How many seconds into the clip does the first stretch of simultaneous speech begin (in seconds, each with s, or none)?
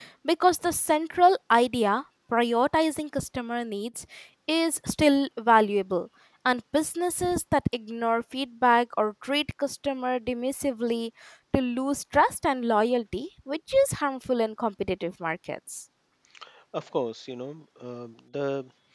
none